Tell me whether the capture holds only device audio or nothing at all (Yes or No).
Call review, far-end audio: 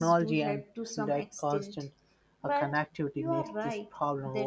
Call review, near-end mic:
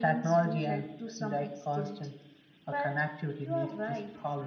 Yes